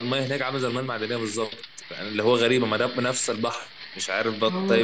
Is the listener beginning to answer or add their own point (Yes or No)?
Yes